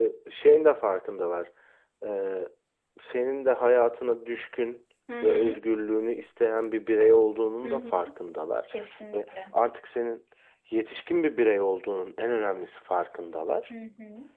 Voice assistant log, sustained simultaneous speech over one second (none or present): none